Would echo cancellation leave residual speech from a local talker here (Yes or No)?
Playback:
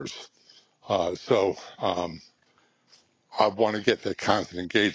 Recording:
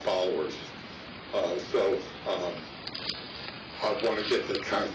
No